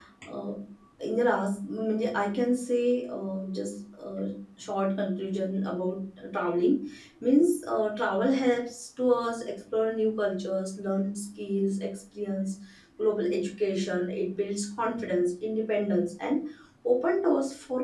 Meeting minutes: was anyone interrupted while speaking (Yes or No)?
No